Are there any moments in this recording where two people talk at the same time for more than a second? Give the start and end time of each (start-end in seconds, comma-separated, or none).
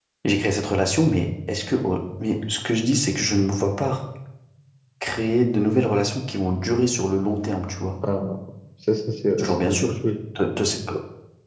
none